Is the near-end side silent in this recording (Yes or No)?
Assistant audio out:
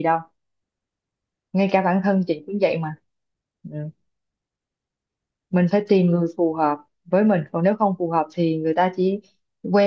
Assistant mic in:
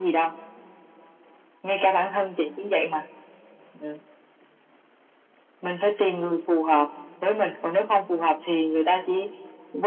Yes